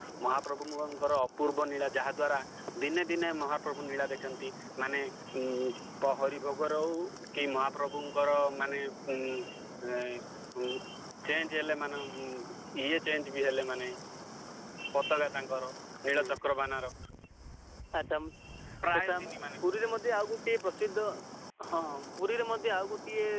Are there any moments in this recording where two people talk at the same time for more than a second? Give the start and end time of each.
none

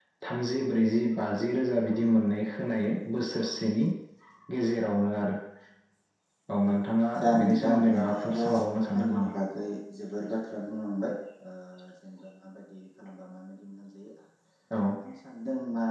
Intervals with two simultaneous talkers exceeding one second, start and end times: 7.2-9.3

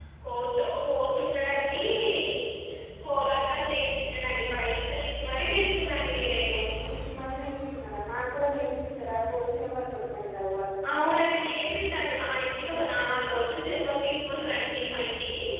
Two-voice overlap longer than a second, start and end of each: none

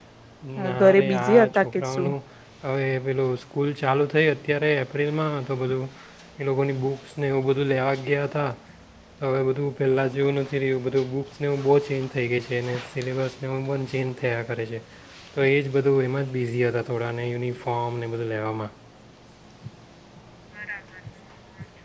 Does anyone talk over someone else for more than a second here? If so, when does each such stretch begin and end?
0.6-2.1

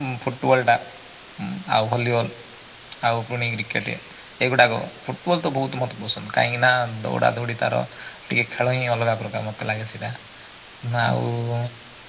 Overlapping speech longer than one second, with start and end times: none

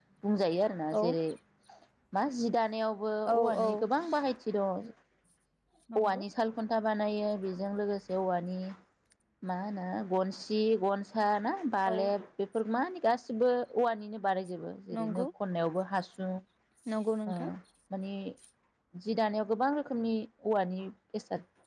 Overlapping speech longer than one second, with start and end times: none

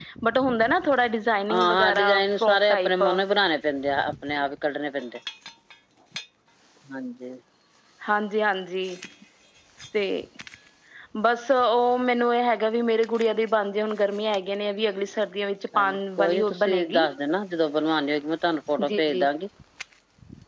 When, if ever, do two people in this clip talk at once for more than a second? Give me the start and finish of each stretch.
1.5-3.0, 15.8-17.0

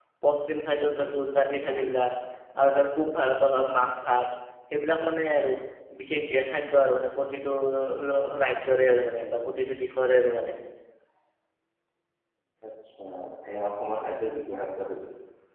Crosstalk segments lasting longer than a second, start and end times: none

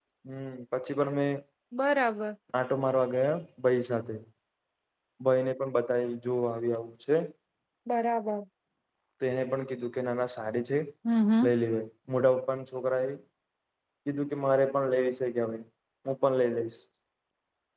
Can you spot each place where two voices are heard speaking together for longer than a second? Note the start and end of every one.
none

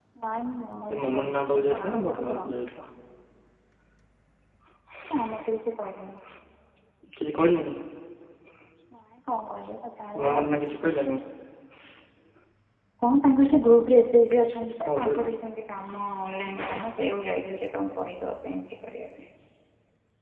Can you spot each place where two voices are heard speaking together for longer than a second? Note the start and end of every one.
1.0-2.6

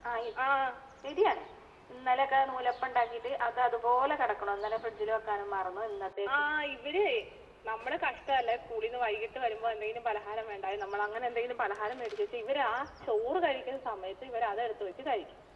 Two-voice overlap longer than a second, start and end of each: none

